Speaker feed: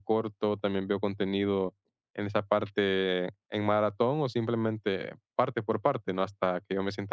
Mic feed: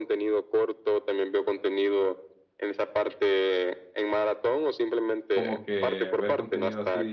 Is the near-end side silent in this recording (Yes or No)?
No